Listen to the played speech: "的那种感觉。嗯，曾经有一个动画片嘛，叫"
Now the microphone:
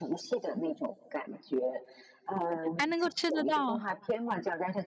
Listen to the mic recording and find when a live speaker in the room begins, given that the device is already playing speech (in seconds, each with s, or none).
2.8 s